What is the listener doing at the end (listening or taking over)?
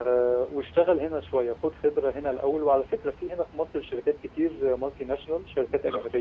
listening